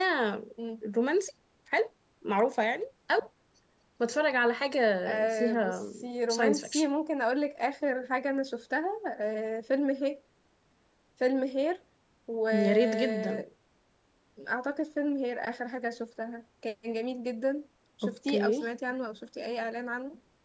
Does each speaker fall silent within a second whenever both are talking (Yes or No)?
No